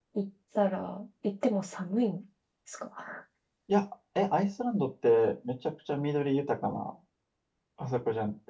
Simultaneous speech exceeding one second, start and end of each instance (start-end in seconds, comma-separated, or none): none